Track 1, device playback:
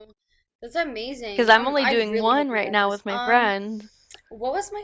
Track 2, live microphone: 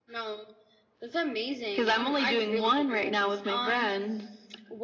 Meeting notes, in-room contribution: none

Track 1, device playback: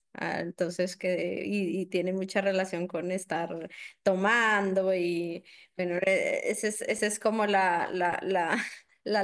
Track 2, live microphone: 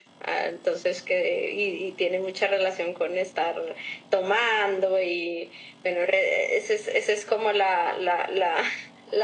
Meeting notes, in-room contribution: none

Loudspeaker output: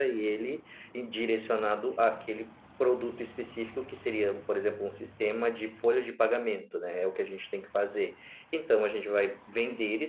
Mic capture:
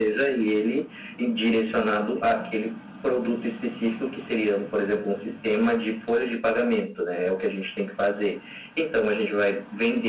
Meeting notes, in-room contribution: none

